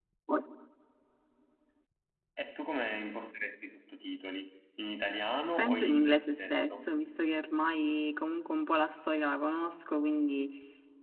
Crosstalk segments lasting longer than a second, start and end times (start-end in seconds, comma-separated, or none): 5.6-6.8